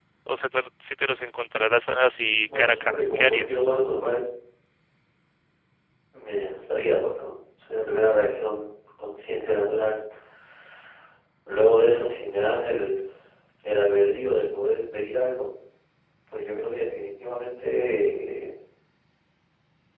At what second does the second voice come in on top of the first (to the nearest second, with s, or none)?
2 s